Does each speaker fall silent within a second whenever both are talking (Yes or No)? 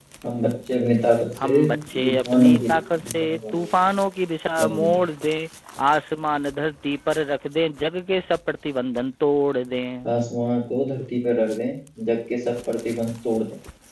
No